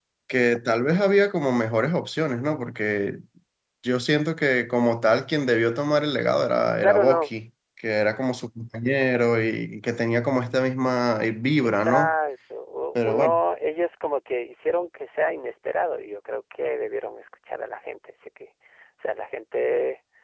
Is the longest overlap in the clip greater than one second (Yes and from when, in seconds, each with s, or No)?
No